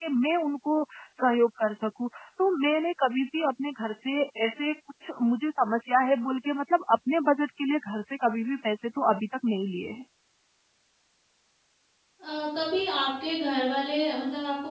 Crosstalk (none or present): none